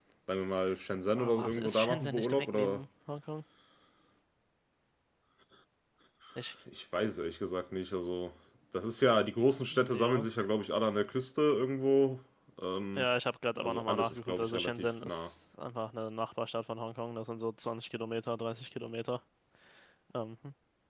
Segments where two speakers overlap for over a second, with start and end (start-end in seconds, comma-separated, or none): 1.2-2.8, 13.6-15.3